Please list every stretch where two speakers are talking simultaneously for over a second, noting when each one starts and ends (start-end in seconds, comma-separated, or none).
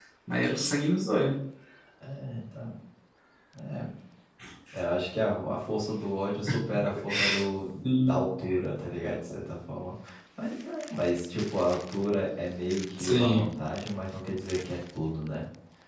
none